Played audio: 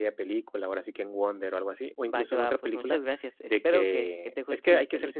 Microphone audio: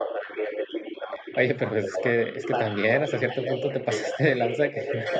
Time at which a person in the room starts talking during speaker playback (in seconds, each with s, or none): 1.4 s